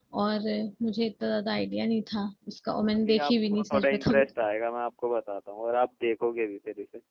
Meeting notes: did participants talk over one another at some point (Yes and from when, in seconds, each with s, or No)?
Yes, from 3.0 s